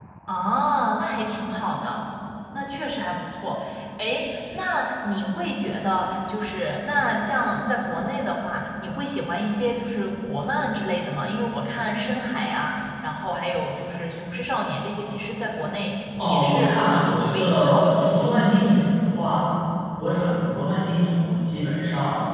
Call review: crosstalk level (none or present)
present